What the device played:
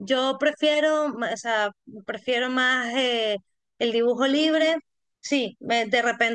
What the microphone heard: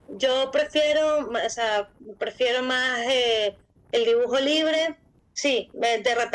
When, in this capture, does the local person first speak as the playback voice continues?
none

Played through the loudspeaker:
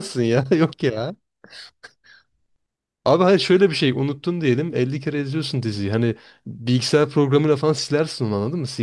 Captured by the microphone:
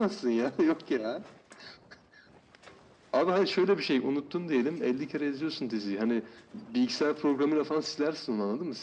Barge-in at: none

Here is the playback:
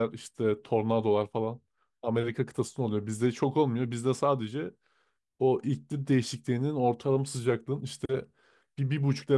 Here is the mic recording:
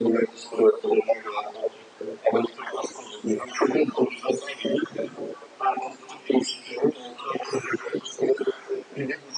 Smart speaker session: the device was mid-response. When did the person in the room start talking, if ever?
none

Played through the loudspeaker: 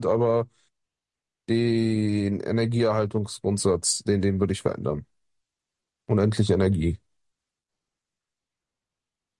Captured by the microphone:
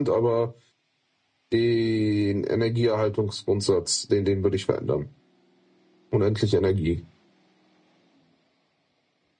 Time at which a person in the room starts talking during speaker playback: none

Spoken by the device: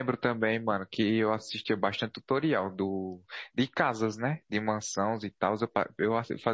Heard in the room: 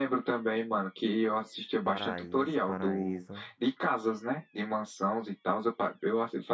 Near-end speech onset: 1.8 s

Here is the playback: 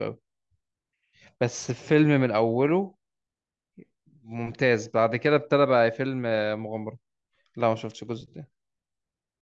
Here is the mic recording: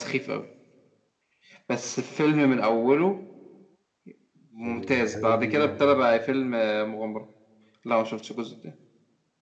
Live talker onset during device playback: 4.6 s

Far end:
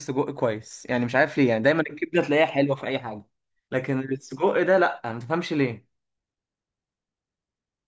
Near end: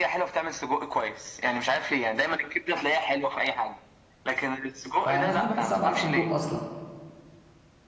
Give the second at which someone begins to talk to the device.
5.0 s

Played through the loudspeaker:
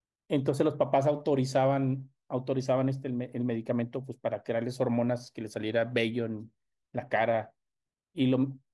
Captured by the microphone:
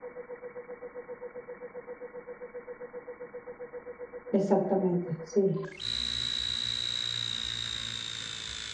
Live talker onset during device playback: 4.3 s

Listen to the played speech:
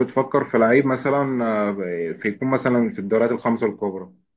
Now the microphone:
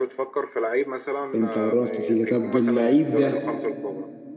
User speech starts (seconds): 1.3 s

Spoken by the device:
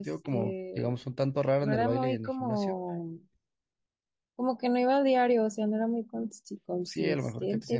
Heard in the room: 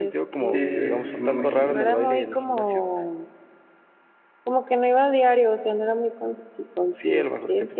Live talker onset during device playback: 0.4 s

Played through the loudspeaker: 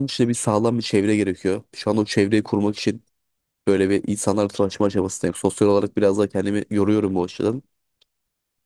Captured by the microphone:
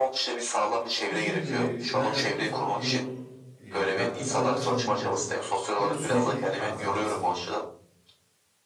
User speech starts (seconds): 1.1 s

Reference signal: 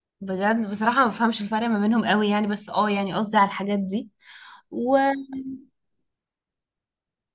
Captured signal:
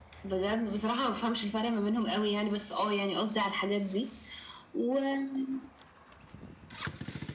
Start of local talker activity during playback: none

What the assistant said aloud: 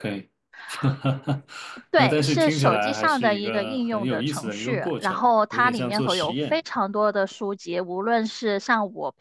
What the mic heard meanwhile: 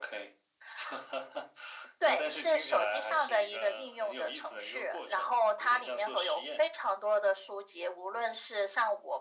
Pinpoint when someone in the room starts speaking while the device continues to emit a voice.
none

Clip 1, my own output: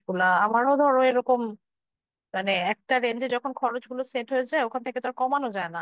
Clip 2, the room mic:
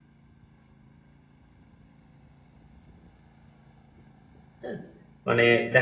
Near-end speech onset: 4.6 s

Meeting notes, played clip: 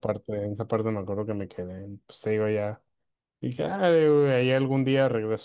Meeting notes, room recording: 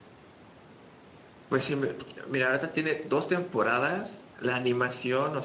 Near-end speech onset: 1.5 s

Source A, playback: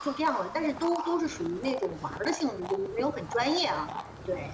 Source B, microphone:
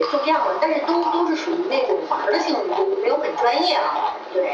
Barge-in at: none

